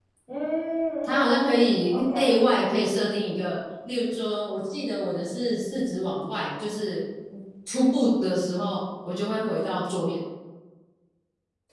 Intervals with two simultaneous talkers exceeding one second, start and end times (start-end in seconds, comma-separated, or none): none